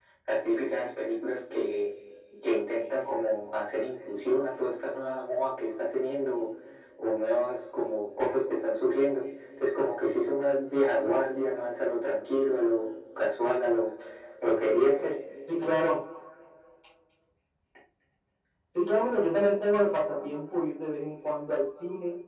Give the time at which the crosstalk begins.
none

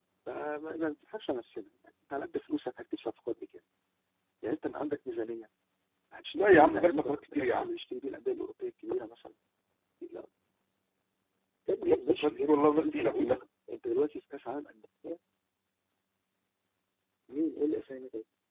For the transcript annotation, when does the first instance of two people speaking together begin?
6.5 s

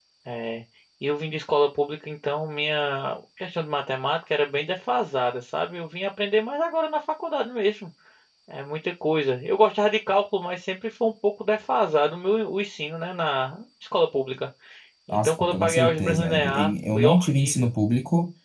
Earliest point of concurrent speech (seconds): 15.1 s

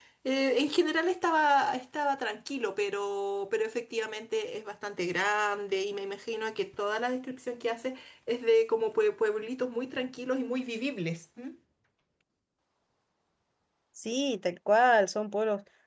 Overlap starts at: none

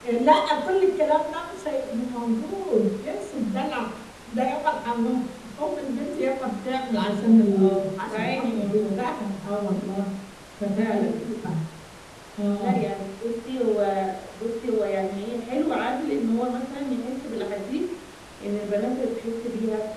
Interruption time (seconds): 7.5 s

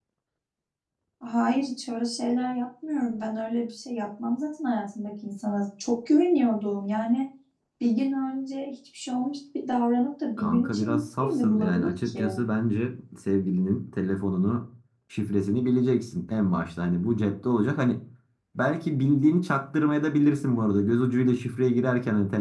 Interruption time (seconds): 10.4 s

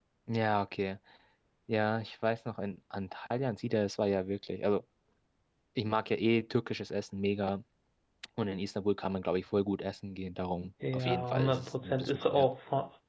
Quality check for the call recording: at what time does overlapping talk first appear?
10.8 s

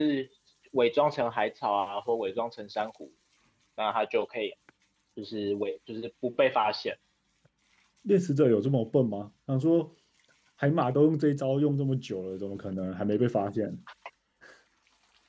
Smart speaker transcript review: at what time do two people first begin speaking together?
none

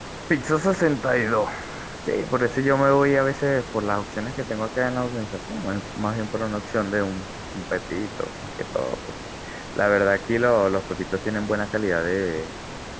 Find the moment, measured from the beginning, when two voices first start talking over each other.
none

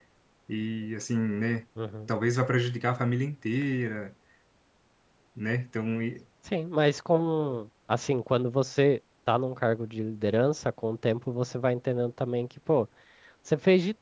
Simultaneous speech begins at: none

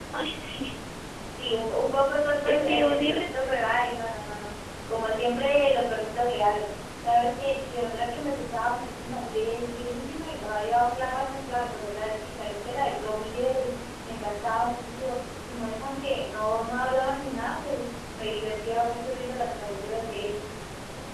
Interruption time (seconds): 2.4 s

